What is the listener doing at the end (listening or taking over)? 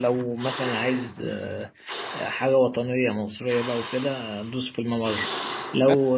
taking over